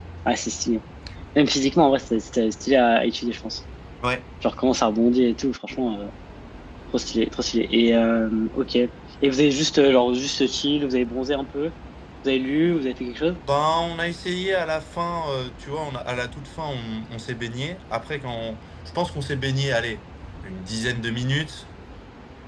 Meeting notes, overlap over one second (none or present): none